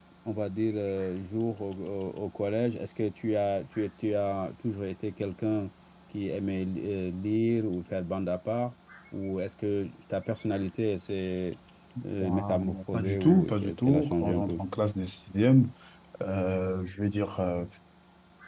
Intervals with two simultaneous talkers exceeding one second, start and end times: 12.2-14.6

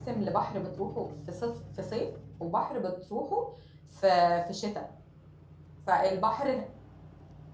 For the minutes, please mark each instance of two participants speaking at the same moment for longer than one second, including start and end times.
none

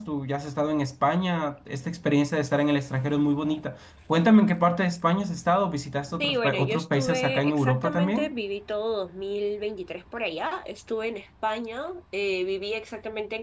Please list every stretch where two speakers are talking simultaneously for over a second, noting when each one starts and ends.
6.2-8.3

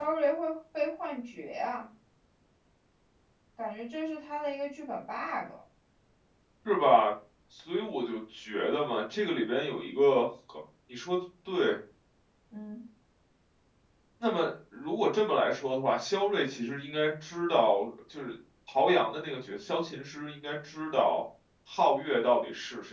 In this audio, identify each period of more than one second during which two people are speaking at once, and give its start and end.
none

